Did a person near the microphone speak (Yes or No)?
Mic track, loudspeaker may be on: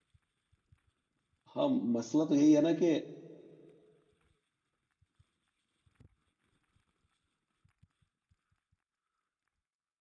Yes